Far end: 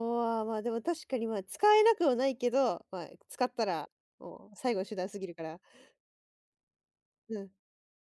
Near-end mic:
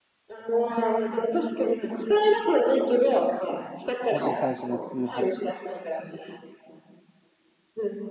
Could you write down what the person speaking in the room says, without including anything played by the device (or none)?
ほんとに最初の数泊、